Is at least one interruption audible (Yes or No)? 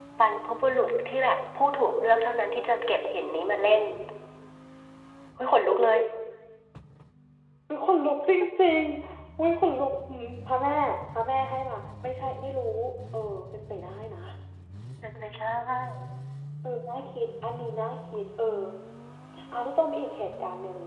No